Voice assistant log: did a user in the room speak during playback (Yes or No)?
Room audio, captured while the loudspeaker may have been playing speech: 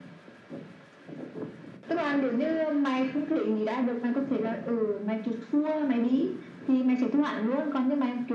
No